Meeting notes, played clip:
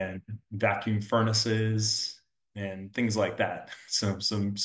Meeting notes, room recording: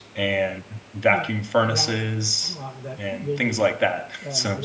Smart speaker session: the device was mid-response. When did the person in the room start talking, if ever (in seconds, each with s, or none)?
1.1 s